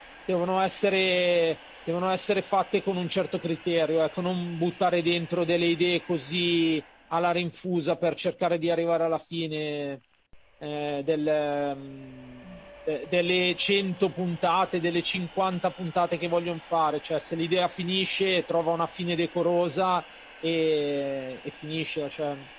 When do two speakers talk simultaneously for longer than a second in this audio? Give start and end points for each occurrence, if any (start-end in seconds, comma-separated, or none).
none